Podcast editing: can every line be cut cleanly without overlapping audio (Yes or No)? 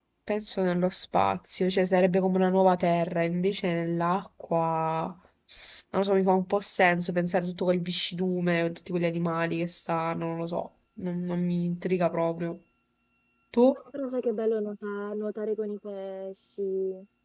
Yes